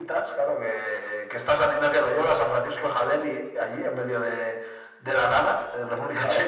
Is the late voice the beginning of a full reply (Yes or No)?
No